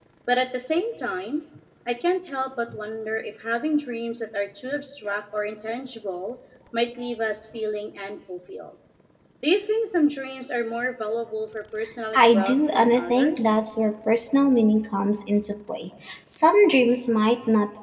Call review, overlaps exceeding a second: present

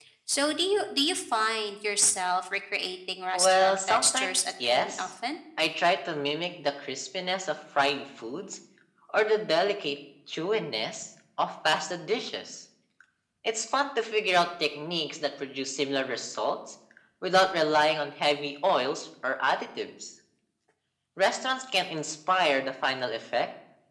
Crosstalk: present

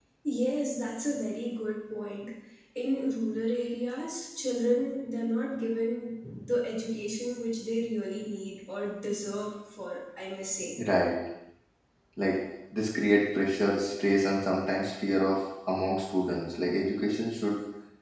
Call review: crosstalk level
none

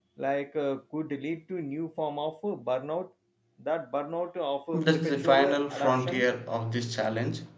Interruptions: present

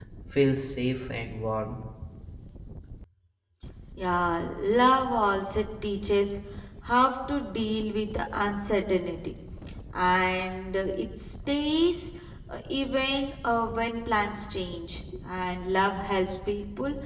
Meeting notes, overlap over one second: none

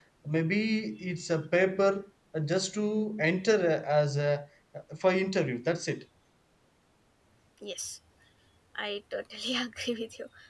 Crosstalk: none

